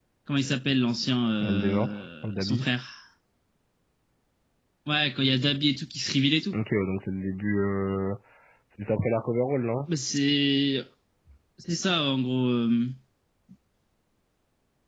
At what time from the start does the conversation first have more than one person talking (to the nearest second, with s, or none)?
1 s